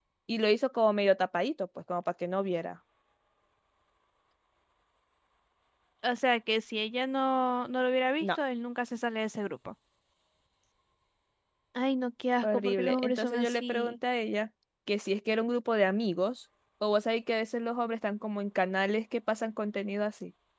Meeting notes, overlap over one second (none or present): present